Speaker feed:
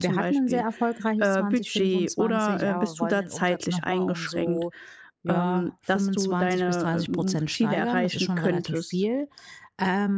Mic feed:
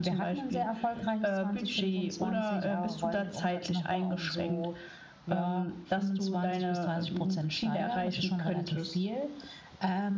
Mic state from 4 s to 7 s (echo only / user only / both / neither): echo only